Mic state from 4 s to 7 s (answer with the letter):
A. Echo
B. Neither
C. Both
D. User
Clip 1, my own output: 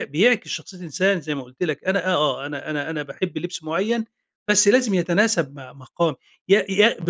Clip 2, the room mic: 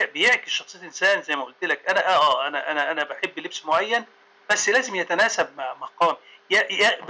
A